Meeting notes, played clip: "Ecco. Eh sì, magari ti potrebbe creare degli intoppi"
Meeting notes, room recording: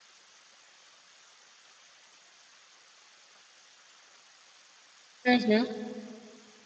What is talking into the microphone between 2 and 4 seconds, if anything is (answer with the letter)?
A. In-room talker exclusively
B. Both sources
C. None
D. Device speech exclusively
C